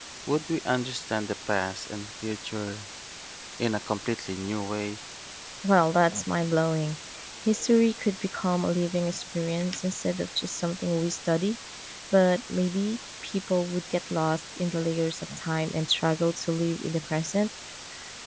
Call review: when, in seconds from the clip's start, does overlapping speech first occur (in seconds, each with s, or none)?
none